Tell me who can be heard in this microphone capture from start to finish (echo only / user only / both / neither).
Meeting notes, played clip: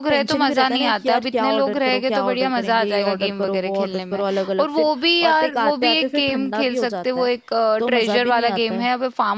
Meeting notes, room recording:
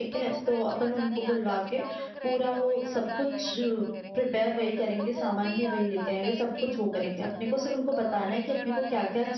both